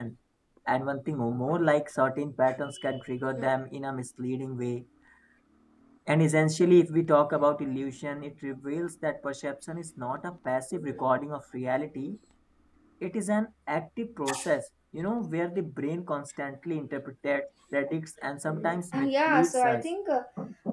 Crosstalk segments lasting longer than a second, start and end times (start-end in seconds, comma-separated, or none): 18.5-19.9